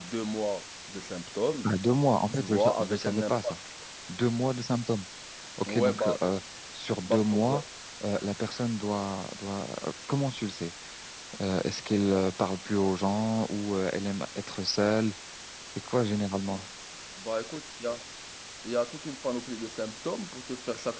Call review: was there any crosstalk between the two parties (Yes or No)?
Yes